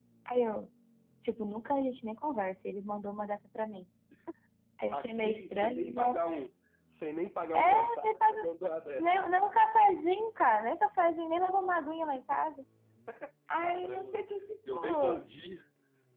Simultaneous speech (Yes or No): Yes